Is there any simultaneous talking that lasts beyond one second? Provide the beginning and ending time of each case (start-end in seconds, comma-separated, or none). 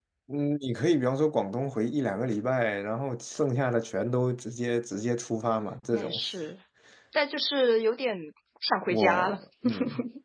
none